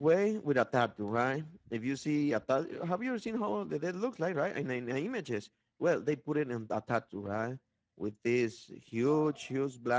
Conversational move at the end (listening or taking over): listening